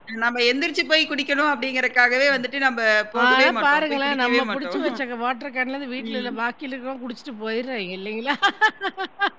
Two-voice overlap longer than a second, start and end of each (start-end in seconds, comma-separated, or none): 3.2-4.8